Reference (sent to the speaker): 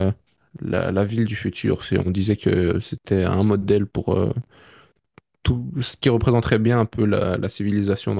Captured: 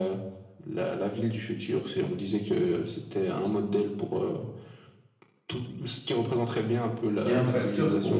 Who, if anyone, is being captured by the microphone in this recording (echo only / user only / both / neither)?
both